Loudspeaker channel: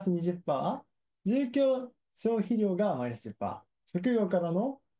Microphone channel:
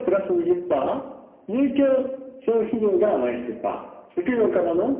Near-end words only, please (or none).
none